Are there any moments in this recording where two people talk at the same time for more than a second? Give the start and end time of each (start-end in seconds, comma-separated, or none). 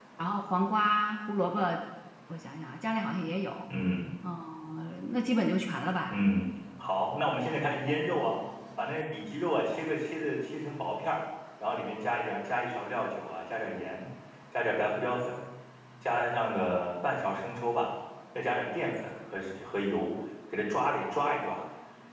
none